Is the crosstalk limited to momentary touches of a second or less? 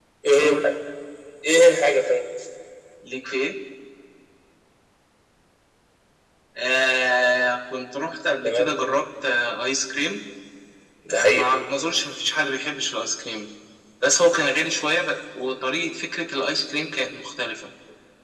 Yes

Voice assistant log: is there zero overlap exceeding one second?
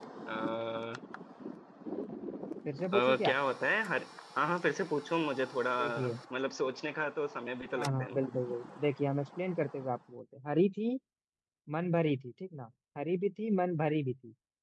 Yes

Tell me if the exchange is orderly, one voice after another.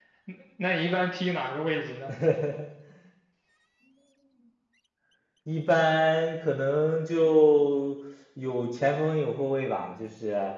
Yes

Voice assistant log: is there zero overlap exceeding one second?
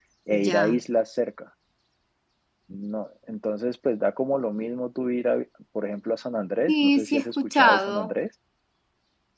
No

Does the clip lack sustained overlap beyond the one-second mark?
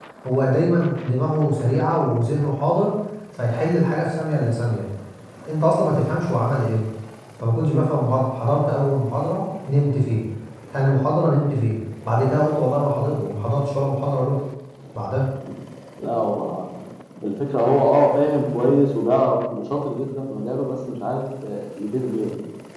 Yes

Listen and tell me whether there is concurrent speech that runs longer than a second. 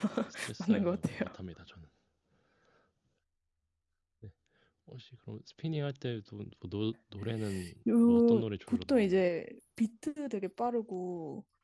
Yes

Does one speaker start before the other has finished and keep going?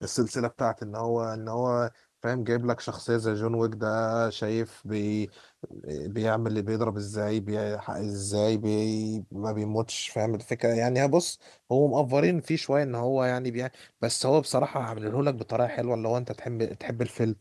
No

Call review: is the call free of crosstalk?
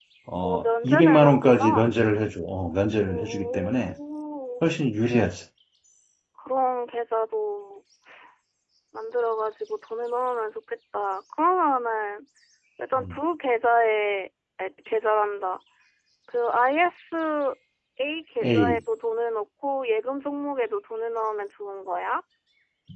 No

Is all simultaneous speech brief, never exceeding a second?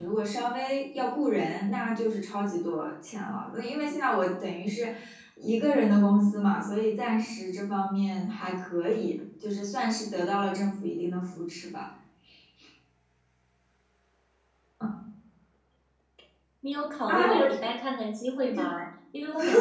Yes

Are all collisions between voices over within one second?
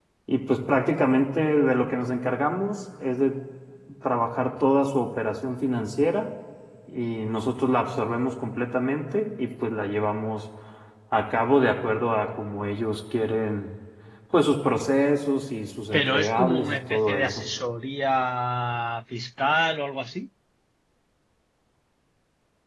No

